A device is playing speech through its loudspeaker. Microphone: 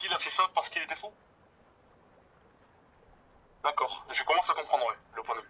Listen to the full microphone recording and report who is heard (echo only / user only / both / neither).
echo only